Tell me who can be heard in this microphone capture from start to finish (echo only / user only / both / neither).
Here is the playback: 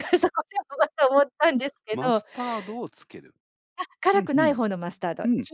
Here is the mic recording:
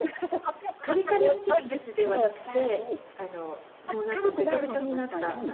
both